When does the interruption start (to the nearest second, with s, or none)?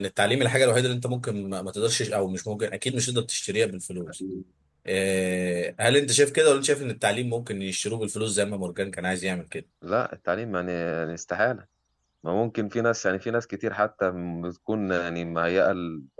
none